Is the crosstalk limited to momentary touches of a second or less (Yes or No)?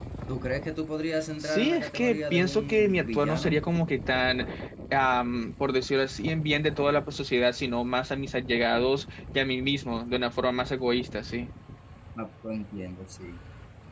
No